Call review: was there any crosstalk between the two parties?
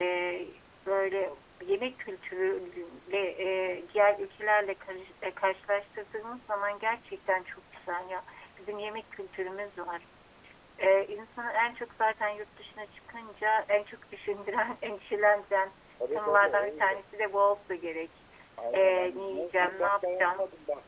Yes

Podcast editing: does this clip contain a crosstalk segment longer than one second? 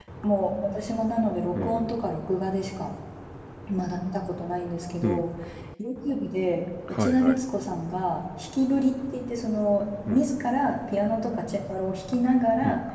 No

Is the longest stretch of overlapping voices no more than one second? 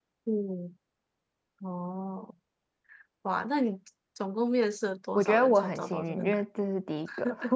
No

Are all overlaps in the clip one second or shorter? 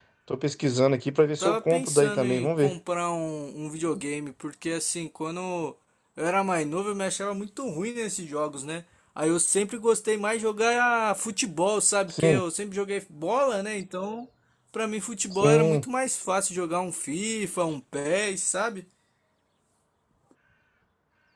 No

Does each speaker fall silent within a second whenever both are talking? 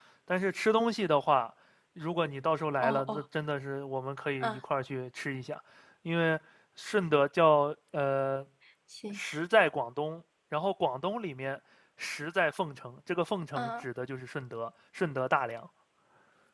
Yes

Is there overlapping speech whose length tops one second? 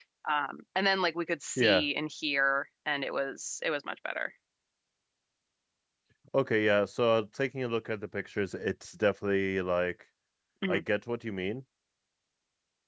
No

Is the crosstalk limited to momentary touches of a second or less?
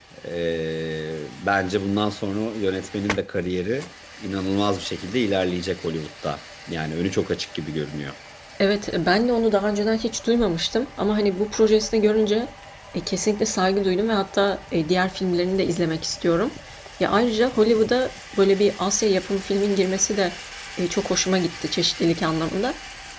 Yes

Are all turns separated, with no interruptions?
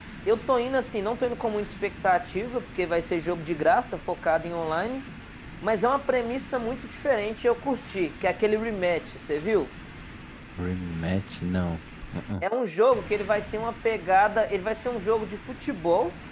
Yes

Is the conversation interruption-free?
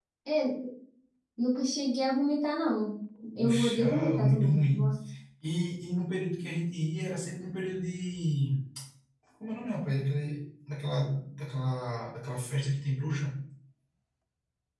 No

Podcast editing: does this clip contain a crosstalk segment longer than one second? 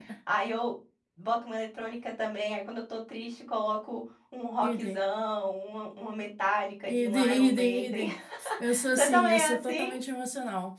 Yes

